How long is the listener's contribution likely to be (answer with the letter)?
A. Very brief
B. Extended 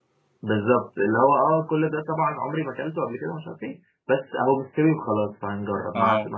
A